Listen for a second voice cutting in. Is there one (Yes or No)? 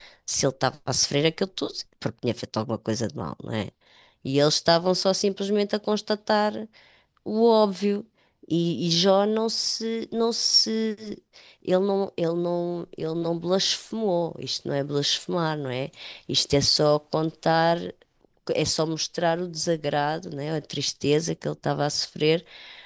No